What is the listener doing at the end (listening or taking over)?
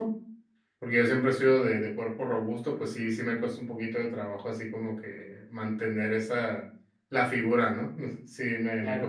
taking over